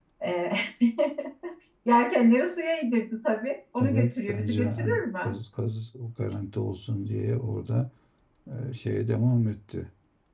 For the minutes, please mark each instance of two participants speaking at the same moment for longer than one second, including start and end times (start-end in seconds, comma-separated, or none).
3.8-5.4